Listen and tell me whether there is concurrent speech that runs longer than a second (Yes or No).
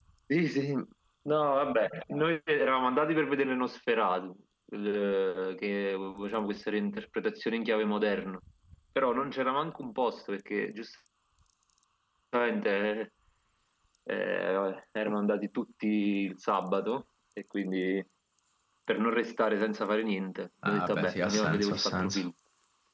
Yes